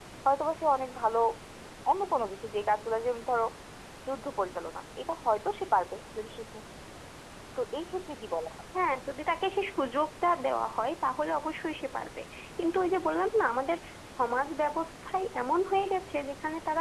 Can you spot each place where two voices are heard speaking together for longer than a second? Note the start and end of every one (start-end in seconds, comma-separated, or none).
none